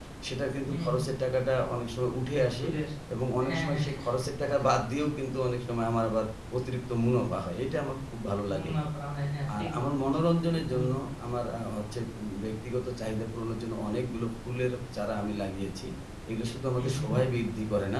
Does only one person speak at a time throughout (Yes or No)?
No